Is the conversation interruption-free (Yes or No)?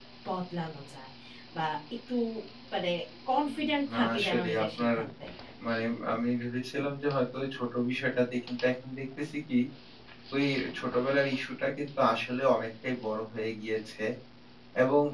No